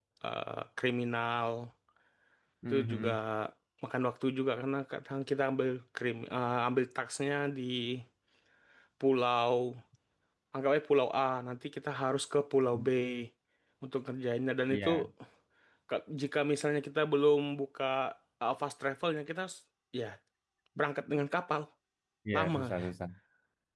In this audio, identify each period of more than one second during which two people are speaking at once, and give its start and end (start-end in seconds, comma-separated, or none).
none